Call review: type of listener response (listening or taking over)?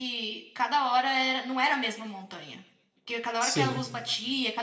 listening